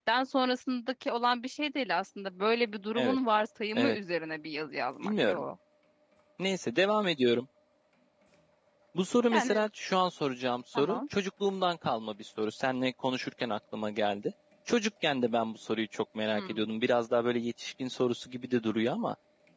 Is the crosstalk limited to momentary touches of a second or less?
Yes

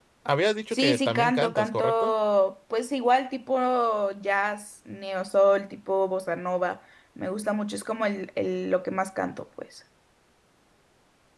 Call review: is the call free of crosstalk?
No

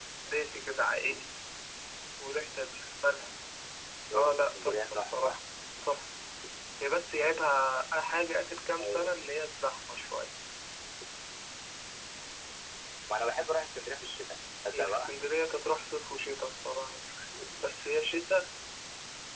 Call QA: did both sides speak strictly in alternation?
No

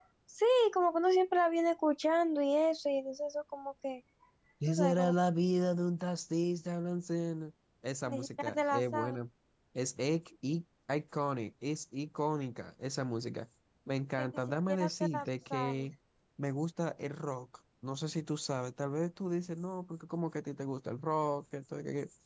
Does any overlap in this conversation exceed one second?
Yes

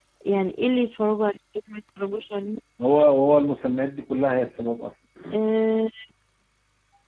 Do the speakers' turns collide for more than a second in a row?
No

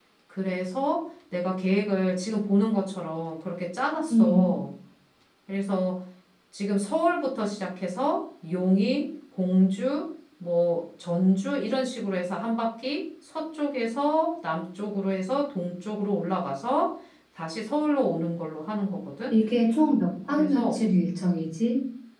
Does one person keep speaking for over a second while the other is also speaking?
No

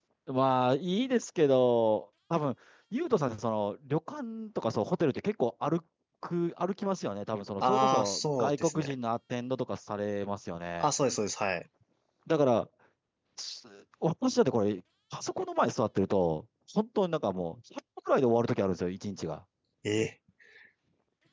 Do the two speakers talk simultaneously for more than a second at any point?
Yes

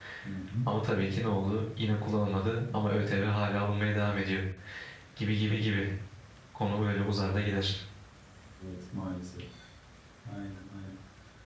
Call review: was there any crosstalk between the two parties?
No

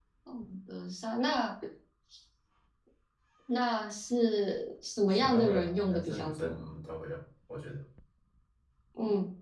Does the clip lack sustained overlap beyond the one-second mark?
No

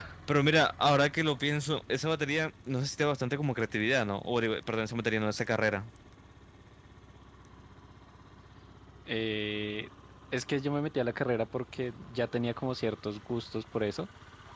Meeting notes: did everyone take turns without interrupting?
Yes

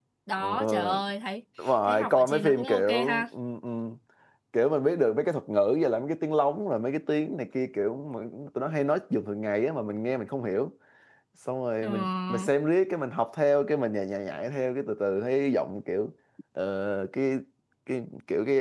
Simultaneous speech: Yes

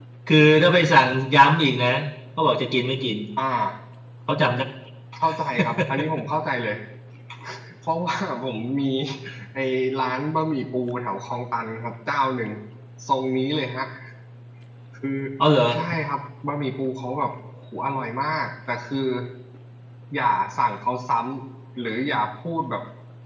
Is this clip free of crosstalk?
Yes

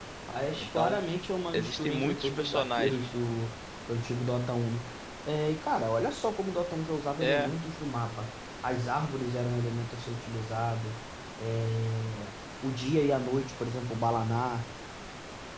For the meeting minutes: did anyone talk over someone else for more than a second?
Yes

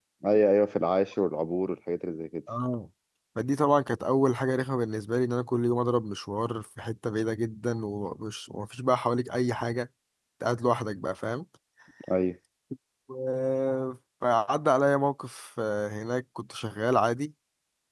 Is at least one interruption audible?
No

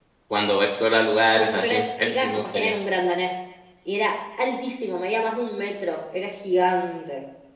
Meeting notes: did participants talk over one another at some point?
Yes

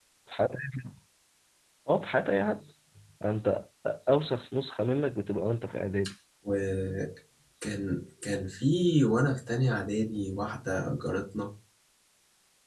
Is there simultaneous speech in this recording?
No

